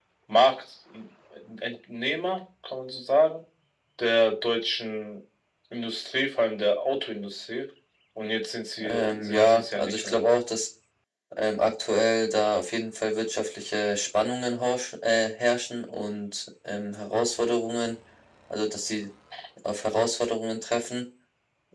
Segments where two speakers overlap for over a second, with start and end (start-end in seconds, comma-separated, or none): 8.8-10.2